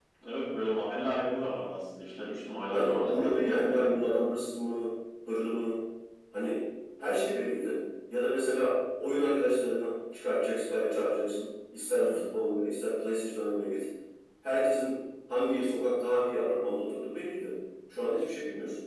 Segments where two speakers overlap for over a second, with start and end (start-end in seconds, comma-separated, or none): 2.7-3.9